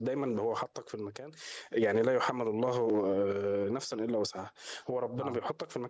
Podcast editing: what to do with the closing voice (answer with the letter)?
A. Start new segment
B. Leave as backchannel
B